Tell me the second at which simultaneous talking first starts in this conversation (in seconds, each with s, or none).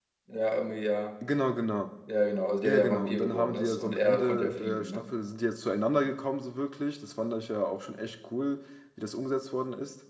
2.6 s